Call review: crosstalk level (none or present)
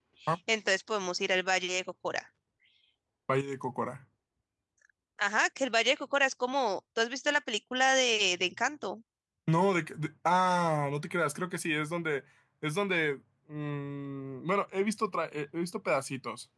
none